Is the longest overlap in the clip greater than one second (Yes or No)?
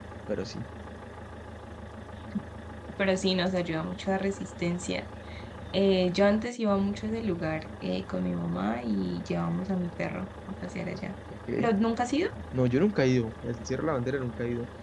No